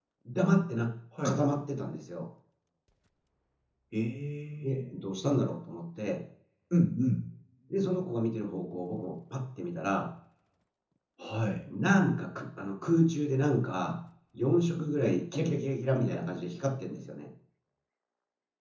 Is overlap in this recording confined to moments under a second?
Yes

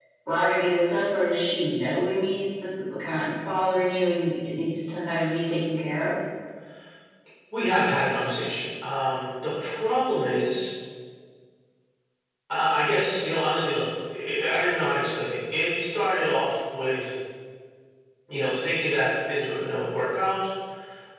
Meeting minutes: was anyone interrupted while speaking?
No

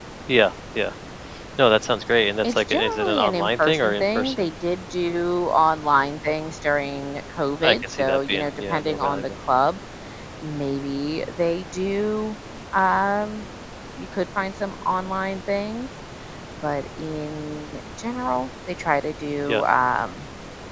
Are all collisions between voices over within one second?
No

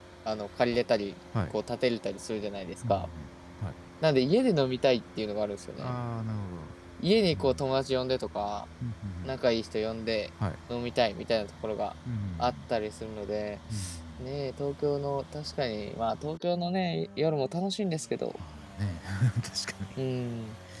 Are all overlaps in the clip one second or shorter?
Yes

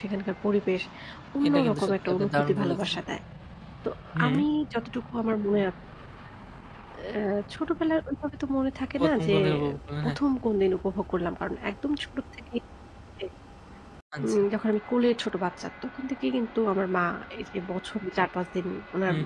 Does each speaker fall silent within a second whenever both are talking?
No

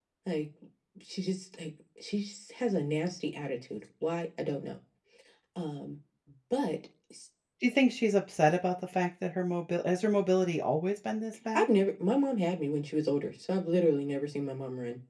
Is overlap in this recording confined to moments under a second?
Yes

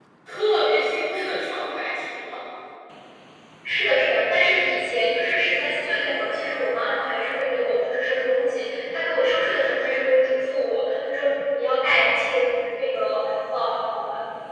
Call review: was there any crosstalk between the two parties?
No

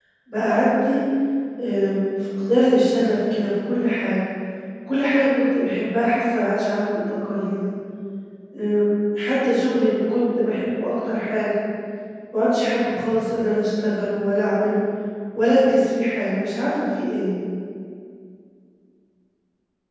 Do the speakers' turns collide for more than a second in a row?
No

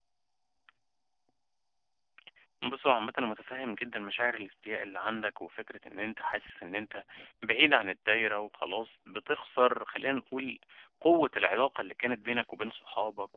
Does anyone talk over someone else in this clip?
No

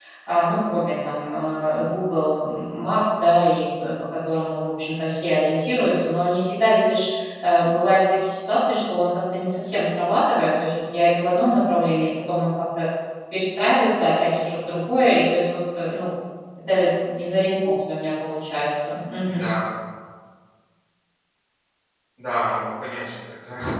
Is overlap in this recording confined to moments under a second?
Yes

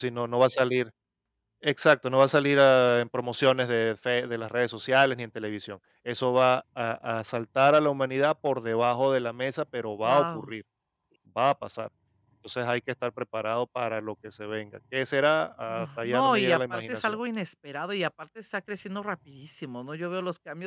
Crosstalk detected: Yes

